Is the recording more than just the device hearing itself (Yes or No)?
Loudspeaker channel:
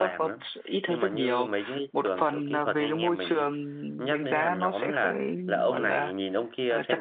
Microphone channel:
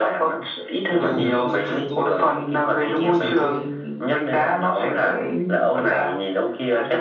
Yes